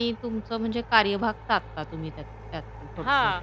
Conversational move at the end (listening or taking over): taking over